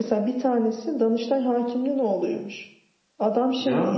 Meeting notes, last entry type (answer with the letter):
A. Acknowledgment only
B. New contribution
A